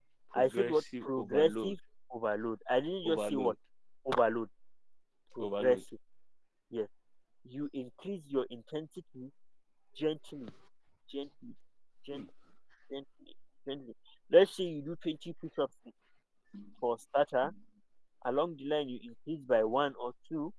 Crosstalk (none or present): present